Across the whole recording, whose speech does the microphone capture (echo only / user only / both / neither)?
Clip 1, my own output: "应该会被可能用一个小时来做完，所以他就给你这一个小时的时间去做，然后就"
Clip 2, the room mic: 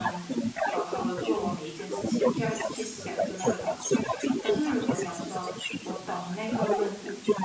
both